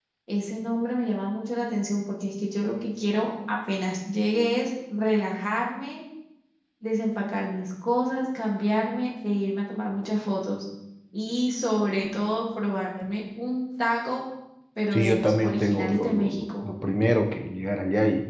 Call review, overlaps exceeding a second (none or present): present